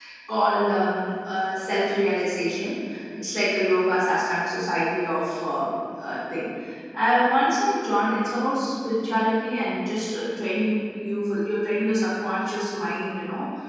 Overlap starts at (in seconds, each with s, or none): none